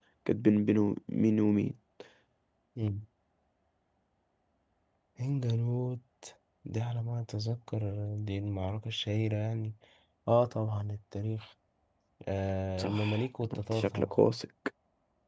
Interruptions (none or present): present